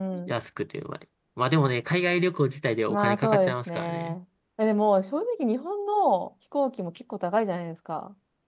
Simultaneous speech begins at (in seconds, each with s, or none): 2.9 s